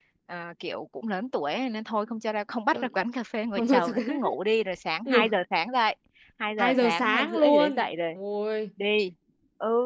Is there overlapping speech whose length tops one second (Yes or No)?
Yes